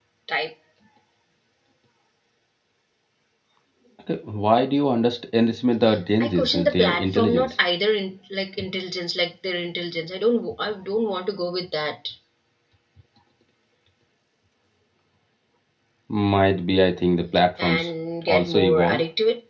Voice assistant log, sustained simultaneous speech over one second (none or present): present